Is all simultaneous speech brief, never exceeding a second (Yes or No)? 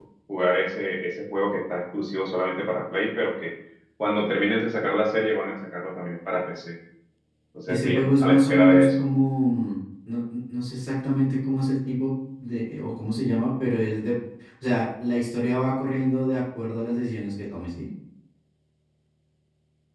No